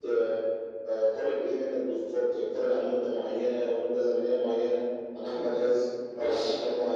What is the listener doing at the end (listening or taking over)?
listening